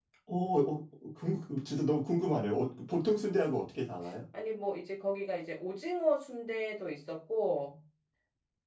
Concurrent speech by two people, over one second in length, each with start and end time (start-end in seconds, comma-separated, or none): none